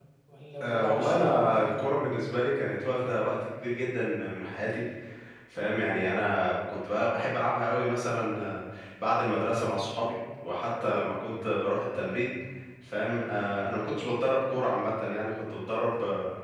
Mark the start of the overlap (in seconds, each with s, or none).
0.6 s